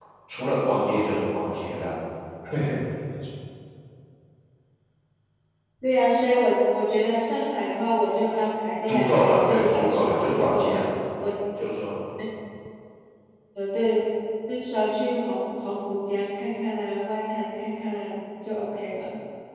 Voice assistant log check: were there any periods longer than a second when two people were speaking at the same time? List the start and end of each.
8.9-10.8

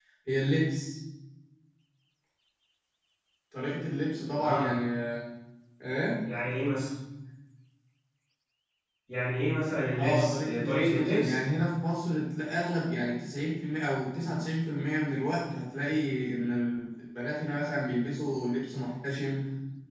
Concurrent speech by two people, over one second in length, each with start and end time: 10.0-11.4

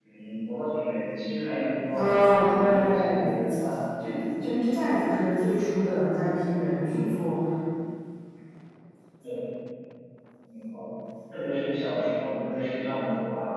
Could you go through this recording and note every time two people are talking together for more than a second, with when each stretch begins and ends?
1.9-3.2

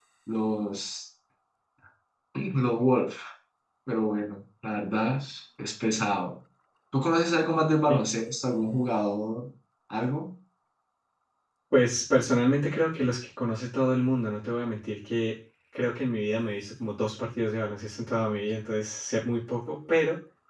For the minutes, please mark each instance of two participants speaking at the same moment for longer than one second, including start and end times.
none

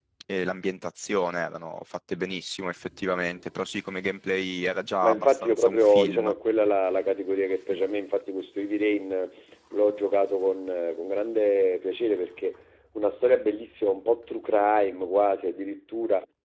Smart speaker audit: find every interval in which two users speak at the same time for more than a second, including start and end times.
5.0-6.3

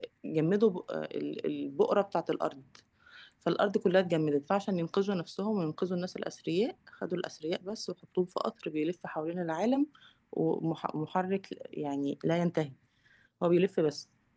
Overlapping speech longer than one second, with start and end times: none

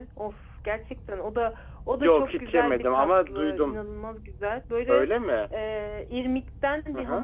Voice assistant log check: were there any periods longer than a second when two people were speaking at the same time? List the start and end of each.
2.0-3.8

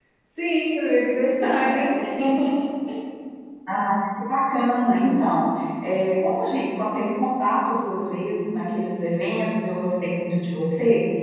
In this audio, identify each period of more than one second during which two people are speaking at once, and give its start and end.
none

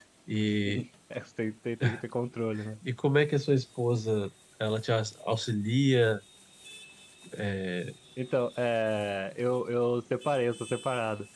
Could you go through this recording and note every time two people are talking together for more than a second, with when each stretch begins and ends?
none

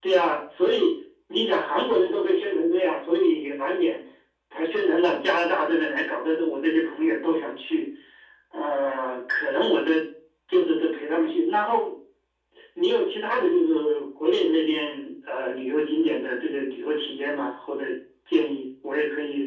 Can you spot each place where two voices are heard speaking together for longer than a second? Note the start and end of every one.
none

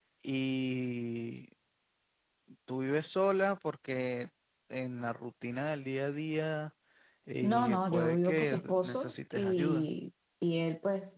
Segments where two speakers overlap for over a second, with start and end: 7.4-9.9

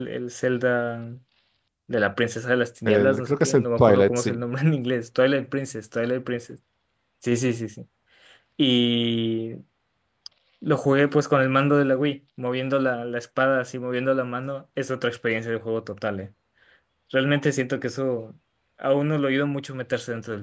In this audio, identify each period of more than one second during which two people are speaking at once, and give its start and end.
2.9-4.4

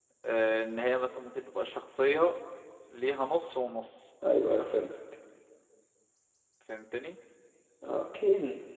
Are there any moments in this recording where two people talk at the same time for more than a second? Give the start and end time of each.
none

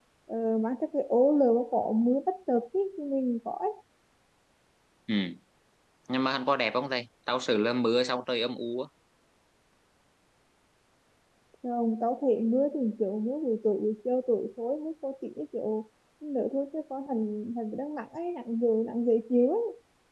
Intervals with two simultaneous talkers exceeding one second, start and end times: none

